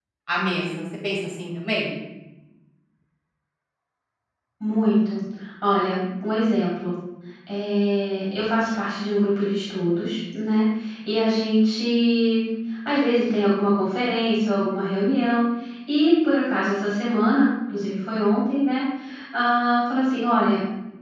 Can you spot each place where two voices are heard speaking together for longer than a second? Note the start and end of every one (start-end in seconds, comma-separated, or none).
none